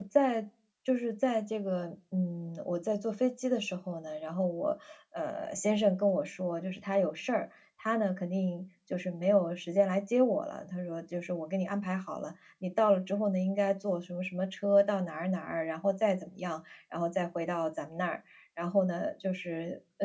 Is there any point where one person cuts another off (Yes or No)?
No